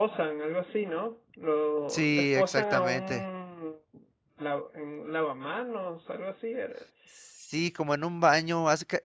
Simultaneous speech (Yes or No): Yes